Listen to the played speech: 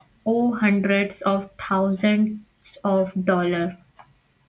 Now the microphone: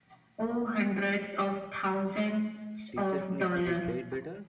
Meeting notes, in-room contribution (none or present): present